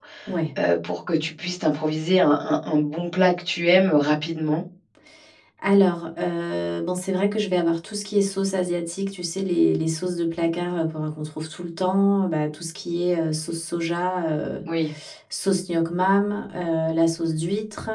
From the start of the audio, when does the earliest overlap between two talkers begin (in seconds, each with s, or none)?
none